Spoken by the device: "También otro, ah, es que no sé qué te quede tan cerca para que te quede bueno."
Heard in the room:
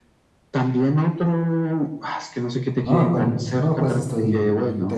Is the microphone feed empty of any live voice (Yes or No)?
No